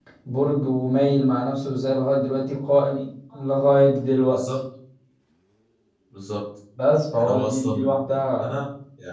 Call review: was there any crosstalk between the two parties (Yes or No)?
Yes